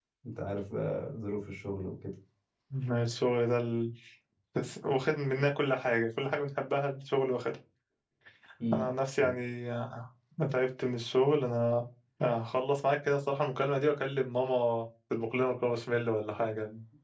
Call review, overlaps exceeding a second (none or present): none